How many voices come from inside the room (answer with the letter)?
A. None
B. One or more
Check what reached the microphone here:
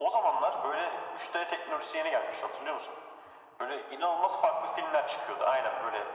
A